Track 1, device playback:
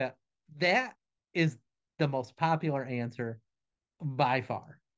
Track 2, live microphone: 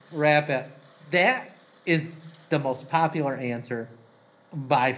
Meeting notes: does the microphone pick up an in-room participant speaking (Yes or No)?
No